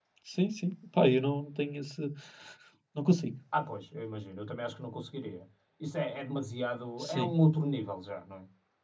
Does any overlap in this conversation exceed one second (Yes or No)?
No